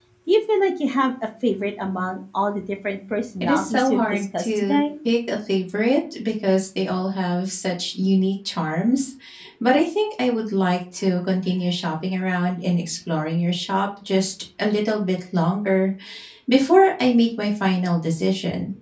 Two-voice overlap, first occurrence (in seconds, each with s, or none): 3.4 s